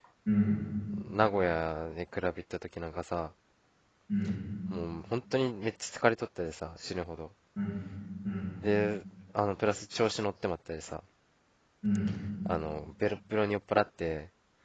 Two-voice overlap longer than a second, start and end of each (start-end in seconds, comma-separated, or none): none